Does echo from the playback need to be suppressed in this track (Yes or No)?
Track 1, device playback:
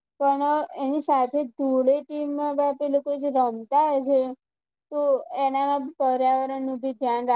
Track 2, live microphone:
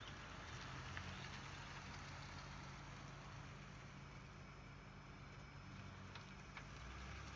No